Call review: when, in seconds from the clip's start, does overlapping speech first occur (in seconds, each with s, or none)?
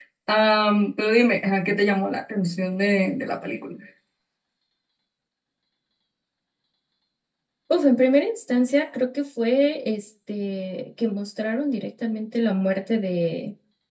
none